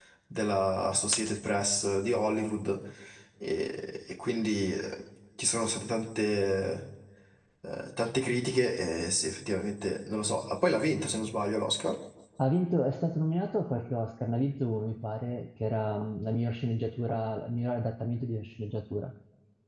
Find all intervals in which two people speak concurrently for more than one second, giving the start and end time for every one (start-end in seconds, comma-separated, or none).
none